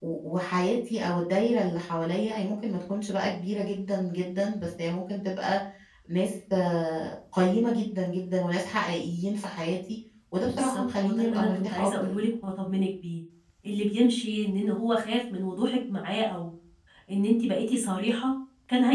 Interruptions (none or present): present